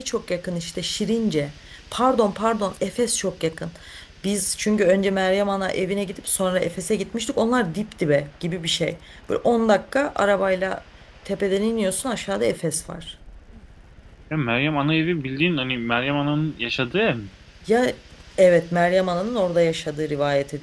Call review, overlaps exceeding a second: none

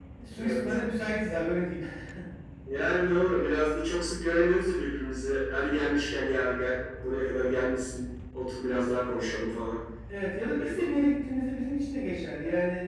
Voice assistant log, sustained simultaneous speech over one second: none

